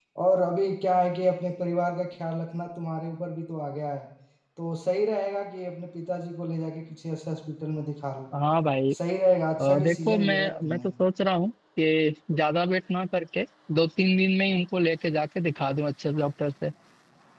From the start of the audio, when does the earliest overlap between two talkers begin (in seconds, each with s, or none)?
9.6 s